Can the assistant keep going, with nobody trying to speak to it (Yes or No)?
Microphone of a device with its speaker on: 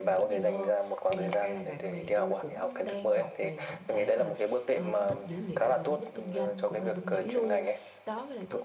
No